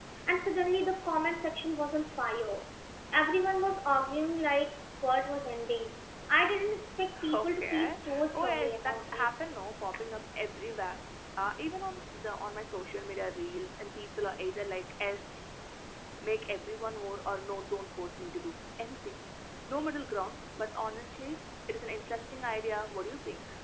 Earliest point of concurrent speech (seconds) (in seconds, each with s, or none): 7.2 s